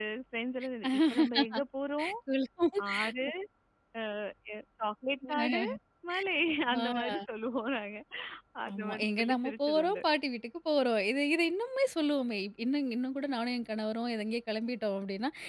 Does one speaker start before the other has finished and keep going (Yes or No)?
Yes